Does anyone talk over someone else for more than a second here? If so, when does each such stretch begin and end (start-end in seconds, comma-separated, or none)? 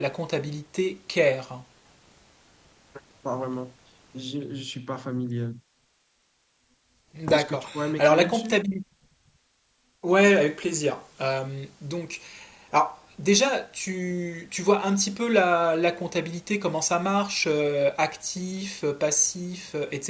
7.3-8.6